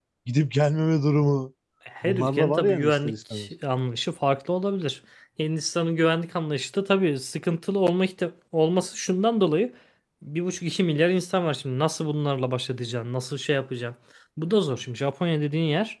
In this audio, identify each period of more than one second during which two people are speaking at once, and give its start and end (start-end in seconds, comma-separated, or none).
2.0-3.5